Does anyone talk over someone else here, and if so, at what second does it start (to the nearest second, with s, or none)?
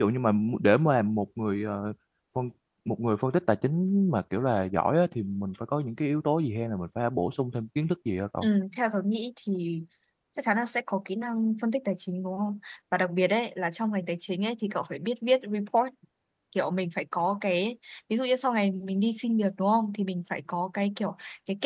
none